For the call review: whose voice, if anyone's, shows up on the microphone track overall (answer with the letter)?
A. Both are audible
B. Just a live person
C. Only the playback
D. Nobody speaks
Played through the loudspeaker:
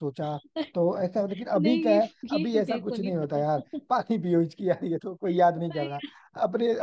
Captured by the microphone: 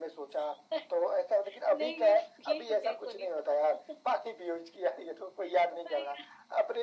C